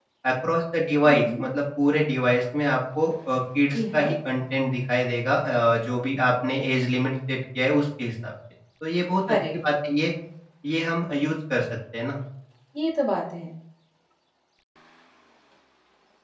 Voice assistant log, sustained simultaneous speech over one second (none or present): none